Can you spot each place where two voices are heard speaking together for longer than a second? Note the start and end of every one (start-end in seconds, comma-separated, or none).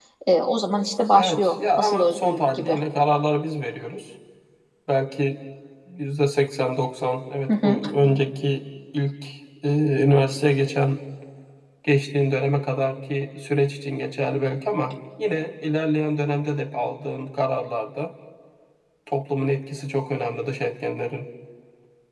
1.1-2.8